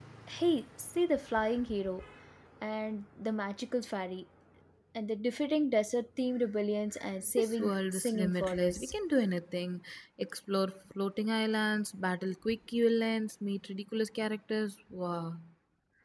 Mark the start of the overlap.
7 s

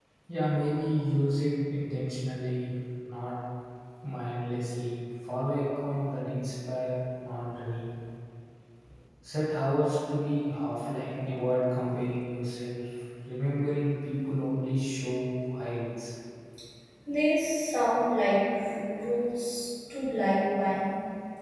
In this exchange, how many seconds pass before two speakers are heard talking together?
none

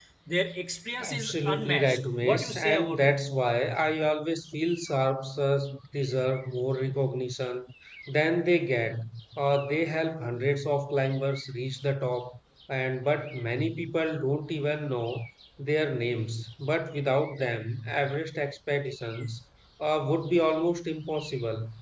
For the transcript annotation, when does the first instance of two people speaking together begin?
1 s

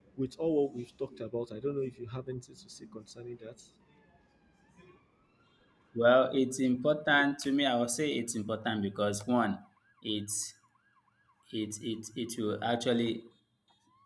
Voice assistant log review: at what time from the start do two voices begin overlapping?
none

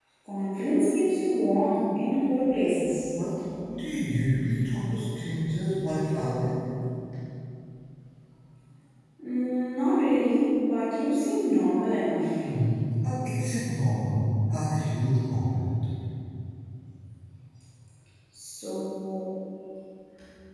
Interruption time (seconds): none

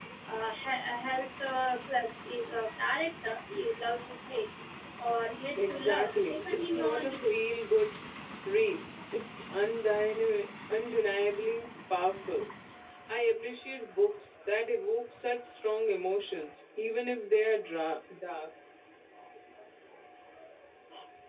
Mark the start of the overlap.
6 s

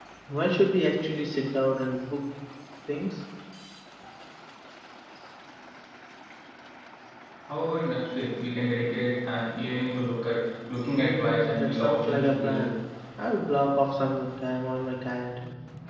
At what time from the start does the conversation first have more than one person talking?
11 s

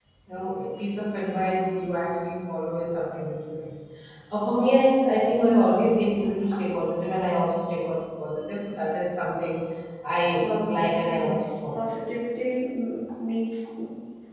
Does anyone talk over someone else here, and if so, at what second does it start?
10 s

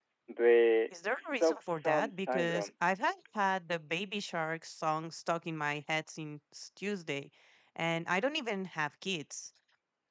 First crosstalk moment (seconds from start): 1 s

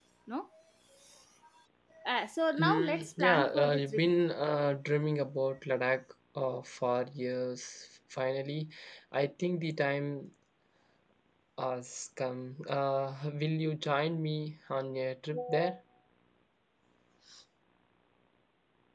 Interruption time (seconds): 3 s

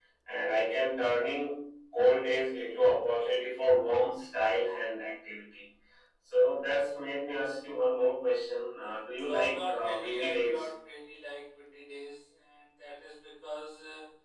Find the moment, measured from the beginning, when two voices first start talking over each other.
9 s

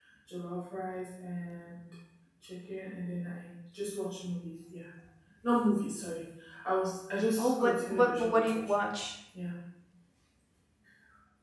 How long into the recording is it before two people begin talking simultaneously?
7 s

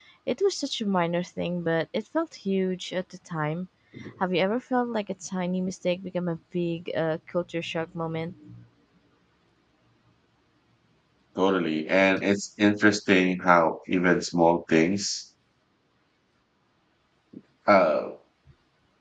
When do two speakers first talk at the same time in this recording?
none

